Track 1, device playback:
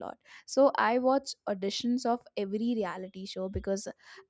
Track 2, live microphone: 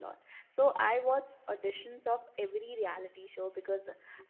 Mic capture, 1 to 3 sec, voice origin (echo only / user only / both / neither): echo only